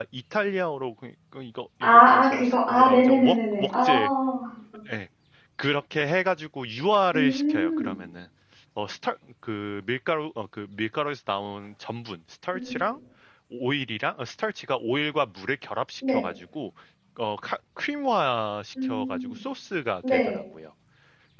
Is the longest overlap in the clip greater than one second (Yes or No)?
Yes